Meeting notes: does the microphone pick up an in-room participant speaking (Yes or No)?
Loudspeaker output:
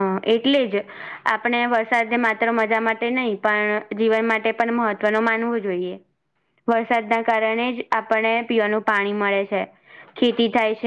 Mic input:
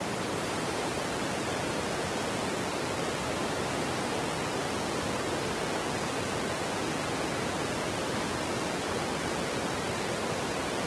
No